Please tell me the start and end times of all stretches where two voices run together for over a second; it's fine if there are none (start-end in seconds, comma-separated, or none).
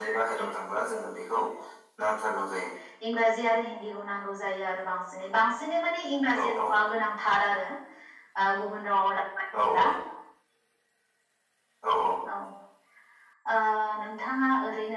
none